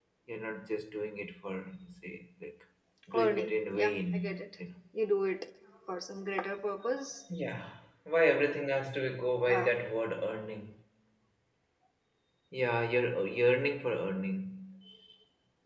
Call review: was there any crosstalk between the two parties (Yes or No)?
Yes